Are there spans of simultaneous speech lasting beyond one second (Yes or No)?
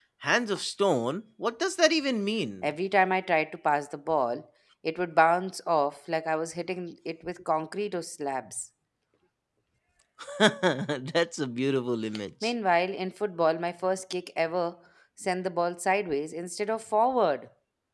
No